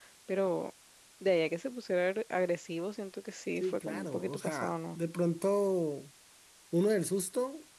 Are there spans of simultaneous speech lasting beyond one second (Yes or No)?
Yes